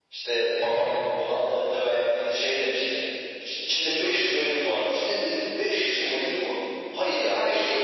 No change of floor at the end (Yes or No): Yes